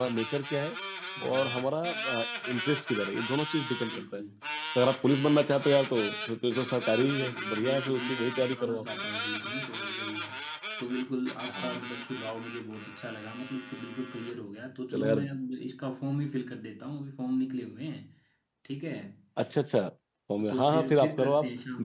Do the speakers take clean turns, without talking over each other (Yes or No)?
No